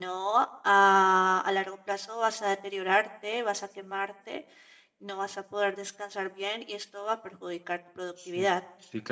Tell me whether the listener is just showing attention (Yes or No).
No